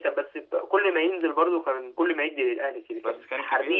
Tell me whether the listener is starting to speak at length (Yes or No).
Yes